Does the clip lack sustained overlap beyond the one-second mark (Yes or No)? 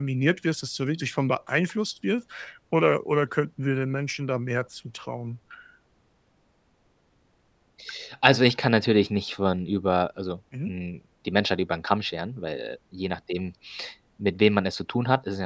Yes